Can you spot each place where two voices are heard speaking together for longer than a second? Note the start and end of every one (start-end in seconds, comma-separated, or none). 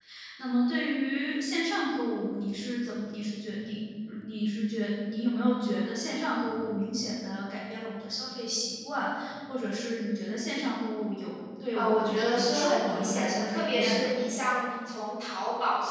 11.7-14.1